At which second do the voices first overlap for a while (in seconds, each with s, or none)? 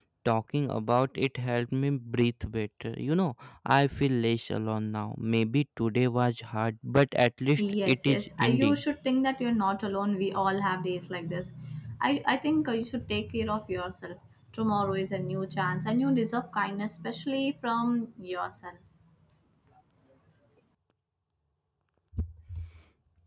7.6 s